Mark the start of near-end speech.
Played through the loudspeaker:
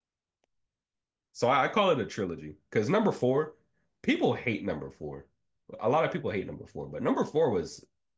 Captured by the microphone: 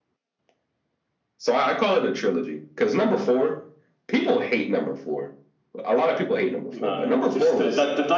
6.7 s

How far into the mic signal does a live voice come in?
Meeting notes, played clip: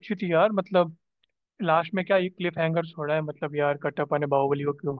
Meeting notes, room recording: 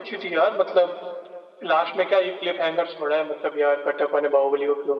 none

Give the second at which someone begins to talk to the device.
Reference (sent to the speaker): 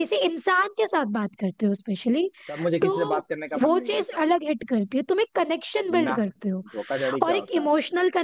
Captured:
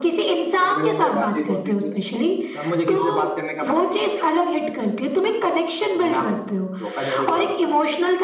0.6 s

